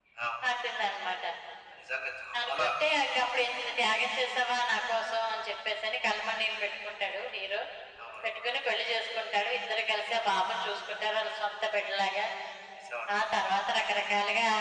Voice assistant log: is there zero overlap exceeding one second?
Yes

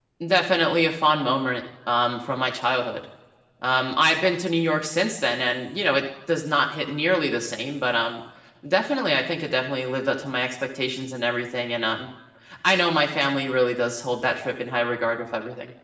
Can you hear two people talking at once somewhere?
No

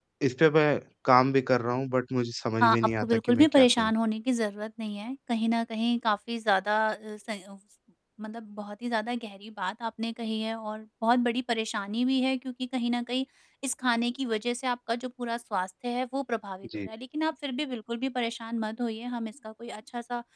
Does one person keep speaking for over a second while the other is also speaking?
Yes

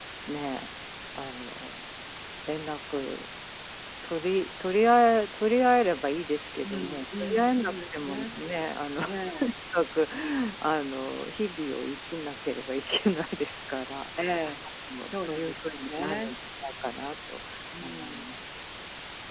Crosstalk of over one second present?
Yes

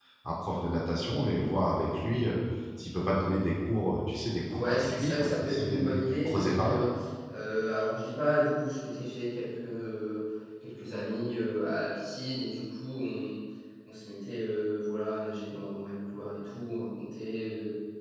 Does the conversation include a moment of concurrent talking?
Yes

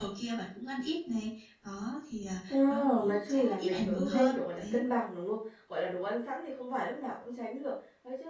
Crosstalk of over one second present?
Yes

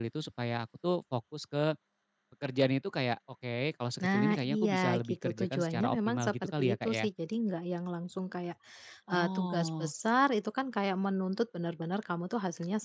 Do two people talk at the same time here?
Yes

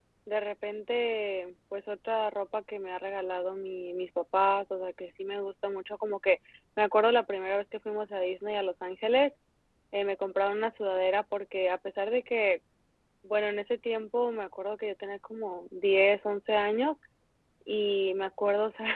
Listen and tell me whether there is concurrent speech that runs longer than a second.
No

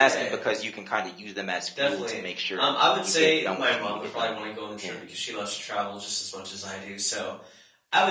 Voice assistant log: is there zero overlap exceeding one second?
No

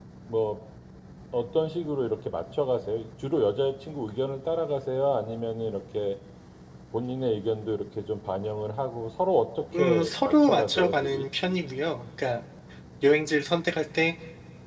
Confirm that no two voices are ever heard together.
No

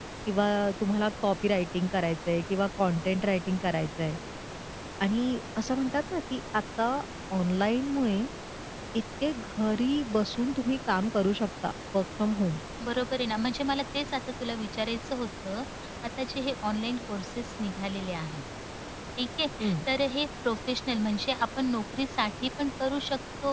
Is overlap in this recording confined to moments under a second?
Yes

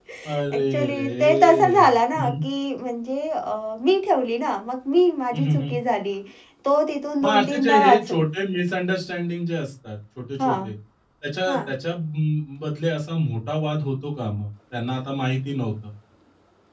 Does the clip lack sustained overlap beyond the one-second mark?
No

